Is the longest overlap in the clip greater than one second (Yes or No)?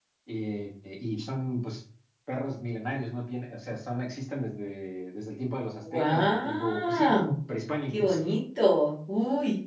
Yes